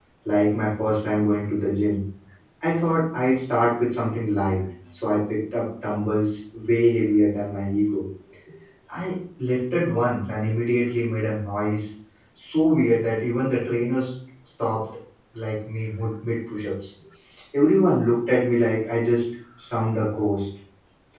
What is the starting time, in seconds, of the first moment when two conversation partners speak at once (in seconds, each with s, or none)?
none